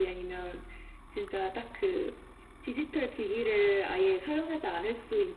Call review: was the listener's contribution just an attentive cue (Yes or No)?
Yes